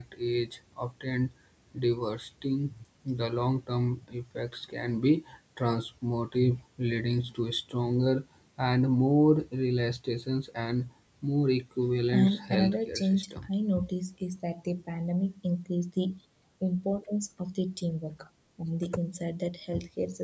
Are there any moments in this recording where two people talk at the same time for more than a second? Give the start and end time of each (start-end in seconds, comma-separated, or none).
12.2-13.5